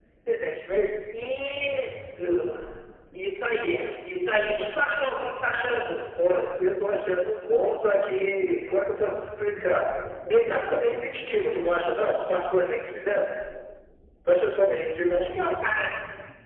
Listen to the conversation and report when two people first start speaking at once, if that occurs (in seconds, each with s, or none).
none